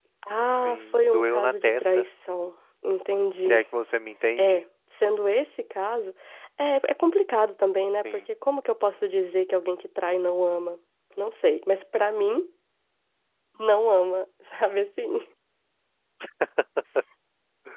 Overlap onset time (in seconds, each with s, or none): 0.6 s